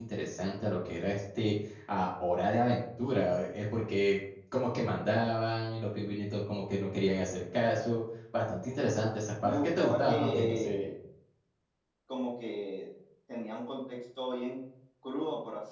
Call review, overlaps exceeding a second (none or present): present